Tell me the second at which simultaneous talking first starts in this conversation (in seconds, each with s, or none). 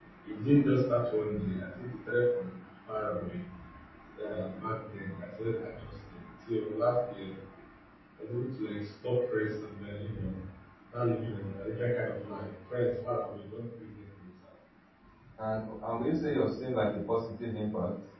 none